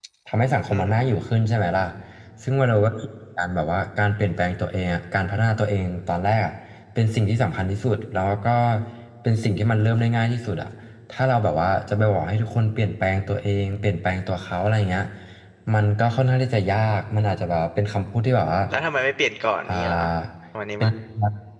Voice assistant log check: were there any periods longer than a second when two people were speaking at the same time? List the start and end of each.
none

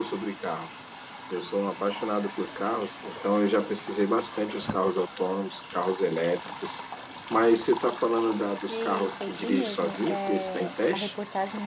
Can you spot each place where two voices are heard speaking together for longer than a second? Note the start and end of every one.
8.7-11.1

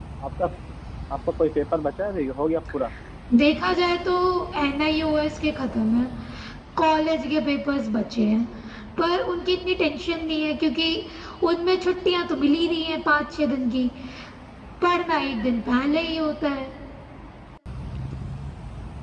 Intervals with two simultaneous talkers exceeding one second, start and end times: none

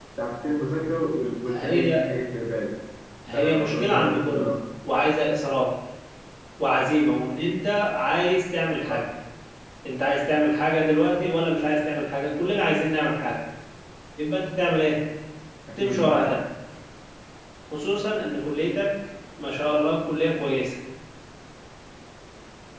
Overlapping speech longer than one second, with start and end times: 3.3-4.6

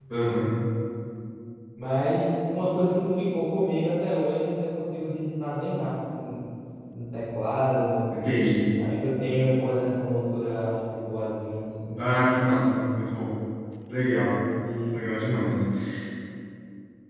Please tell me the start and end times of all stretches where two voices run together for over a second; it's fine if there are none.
none

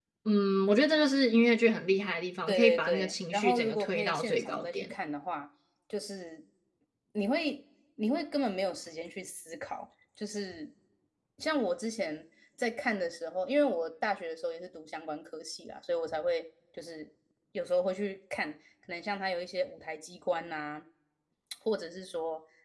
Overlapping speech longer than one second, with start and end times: 2.5-4.9

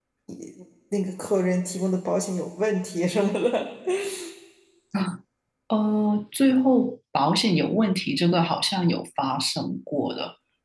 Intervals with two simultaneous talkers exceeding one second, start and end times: none

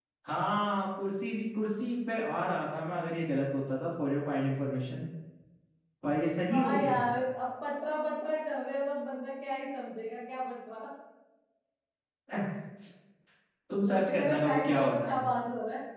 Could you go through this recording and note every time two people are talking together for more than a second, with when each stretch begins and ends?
13.9-15.2

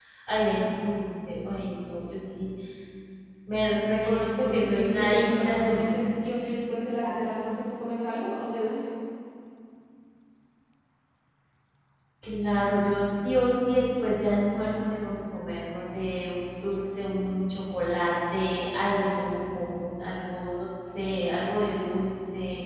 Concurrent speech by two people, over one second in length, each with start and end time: 4.0-6.0

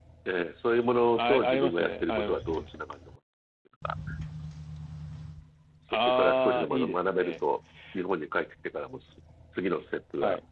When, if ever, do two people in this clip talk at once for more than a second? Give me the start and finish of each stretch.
1.1-2.7, 5.9-7.4

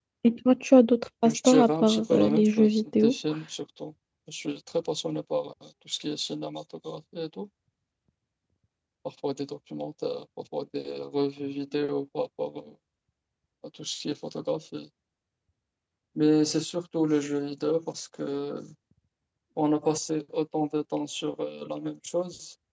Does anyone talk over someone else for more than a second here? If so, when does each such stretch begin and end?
1.2-3.1

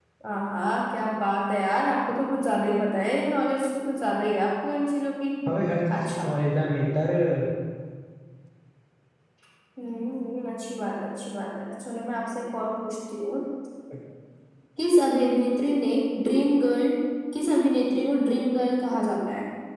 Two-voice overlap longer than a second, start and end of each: none

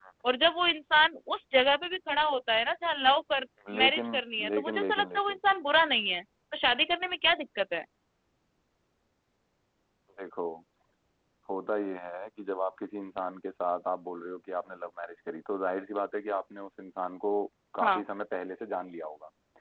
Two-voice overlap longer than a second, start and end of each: 3.8-5.4

